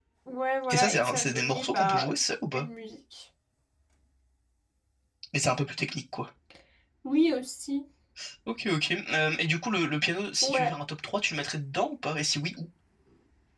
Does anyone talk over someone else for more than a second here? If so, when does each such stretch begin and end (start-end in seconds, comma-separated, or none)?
0.7-2.1